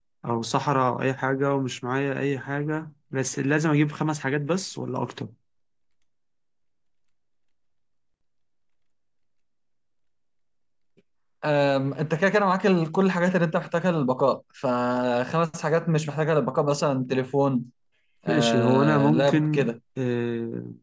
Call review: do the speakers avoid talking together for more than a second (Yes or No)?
No